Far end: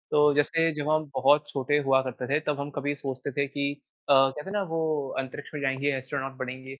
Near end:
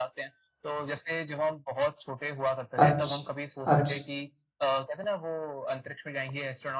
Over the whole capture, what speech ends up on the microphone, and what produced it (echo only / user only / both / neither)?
both